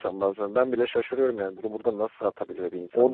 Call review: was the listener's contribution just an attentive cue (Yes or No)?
No